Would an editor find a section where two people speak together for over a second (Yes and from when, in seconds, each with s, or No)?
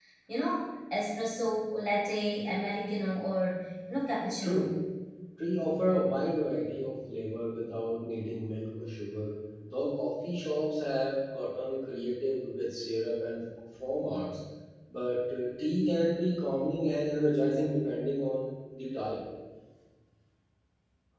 No